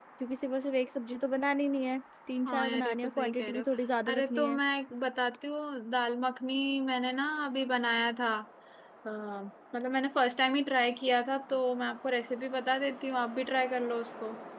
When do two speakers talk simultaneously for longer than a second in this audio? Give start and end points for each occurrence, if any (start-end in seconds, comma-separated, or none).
2.5-3.6